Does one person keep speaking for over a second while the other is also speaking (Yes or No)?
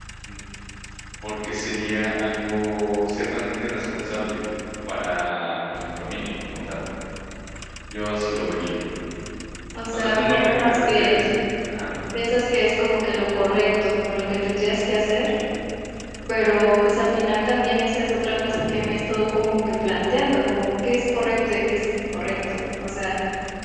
Yes